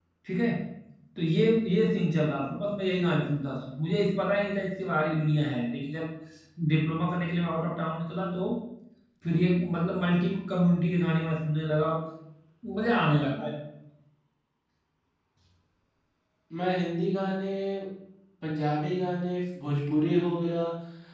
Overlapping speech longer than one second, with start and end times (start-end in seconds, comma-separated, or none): none